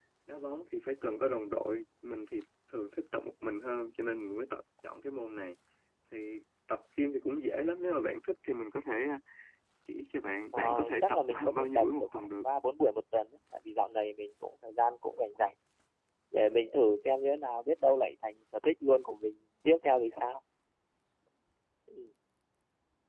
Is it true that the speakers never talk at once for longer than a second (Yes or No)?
No